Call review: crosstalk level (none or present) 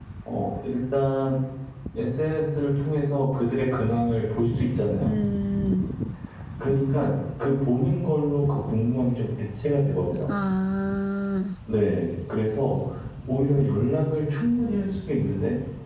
none